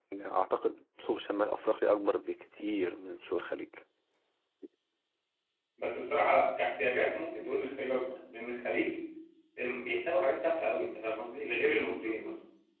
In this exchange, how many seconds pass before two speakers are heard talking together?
none

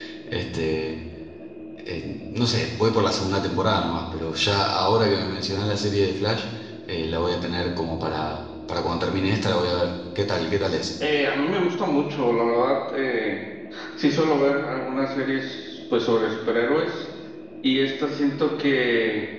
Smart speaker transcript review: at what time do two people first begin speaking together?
none

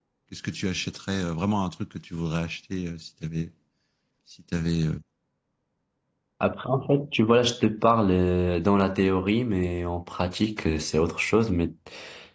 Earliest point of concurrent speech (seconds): none

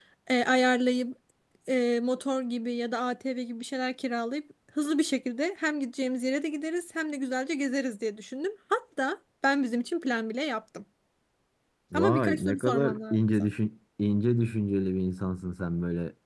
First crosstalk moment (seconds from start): 11.9 s

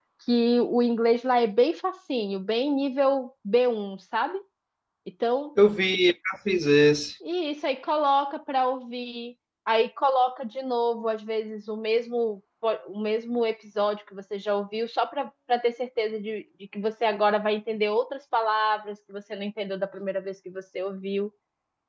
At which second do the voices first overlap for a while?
none

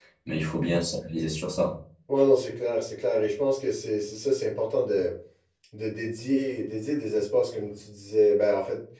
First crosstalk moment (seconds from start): none

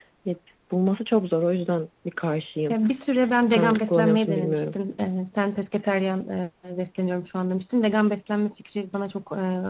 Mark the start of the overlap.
3.5 s

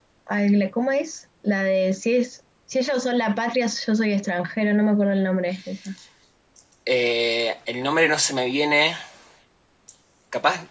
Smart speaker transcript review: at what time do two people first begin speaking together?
none

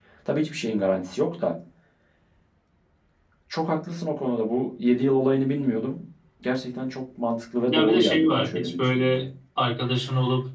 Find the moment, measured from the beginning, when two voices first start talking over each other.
7.7 s

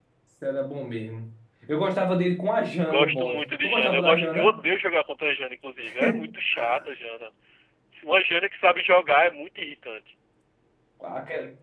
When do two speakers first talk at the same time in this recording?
2.8 s

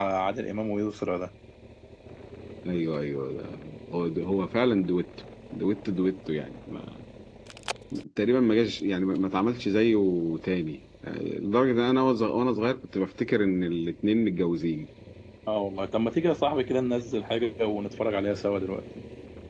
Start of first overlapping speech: none

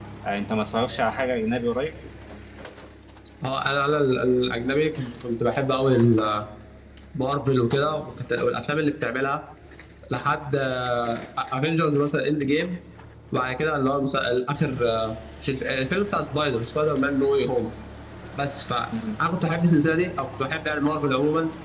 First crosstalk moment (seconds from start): none

